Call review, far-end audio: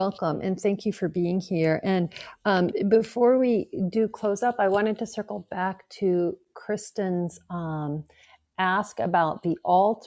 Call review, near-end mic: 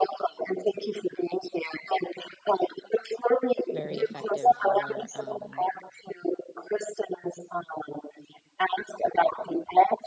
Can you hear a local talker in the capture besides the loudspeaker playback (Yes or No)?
Yes